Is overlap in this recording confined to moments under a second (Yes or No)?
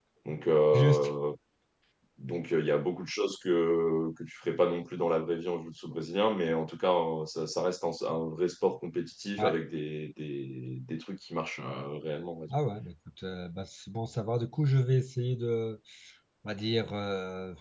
Yes